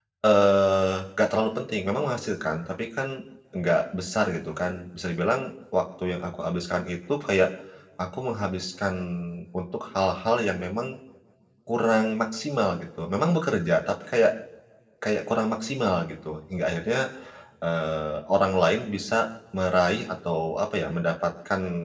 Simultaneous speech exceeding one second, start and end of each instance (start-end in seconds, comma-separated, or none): none